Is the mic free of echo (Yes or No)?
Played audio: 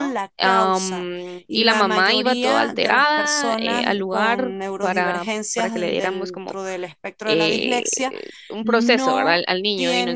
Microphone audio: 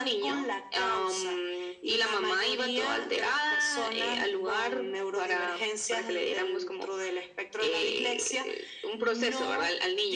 No